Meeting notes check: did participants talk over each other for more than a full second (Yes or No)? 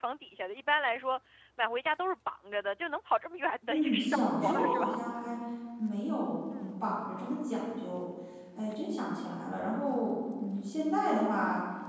Yes